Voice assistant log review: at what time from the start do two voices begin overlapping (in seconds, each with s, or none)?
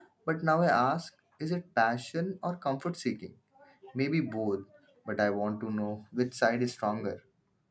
none